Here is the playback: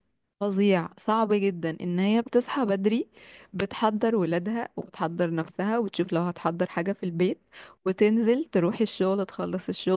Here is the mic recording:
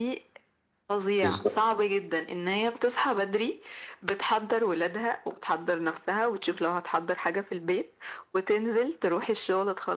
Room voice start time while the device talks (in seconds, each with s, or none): 1.2 s